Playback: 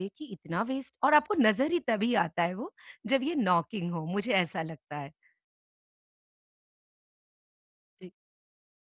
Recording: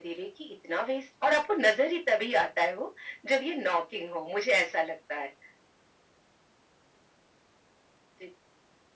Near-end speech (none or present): none